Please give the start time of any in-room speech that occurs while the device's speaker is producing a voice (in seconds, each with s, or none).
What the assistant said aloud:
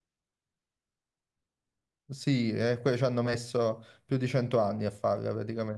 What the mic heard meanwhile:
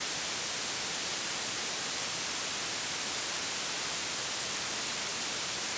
none